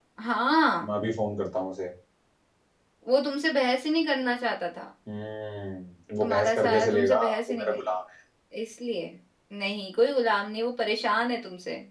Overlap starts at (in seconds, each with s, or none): 6.2 s